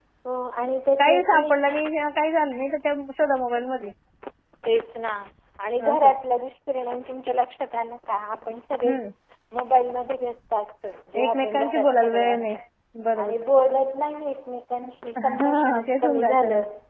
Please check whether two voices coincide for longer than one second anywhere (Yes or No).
Yes